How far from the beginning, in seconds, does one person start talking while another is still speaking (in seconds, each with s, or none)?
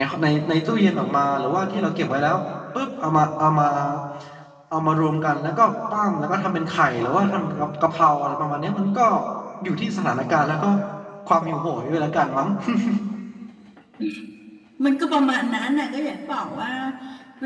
none